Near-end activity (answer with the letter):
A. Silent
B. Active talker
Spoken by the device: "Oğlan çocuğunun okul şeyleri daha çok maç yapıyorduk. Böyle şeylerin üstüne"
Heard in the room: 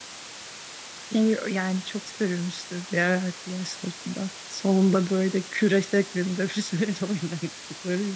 B